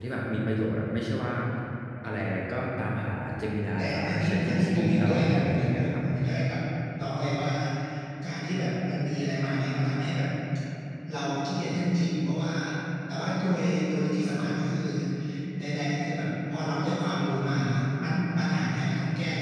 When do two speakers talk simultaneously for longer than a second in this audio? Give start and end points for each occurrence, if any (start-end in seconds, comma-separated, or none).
3.8-6.0